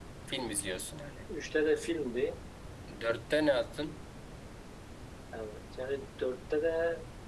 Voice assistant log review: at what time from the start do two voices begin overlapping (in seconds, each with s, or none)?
none